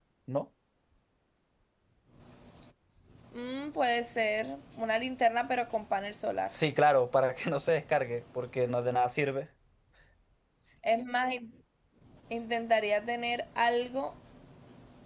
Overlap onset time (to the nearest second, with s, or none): none